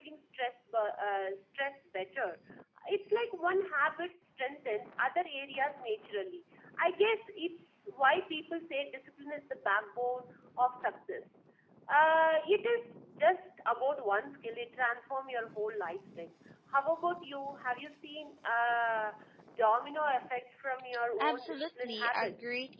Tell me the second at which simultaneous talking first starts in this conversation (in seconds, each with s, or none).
21.2 s